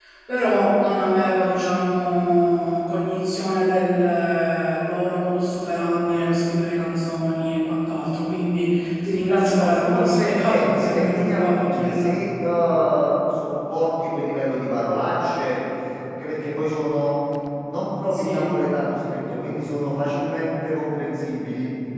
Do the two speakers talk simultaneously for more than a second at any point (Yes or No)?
Yes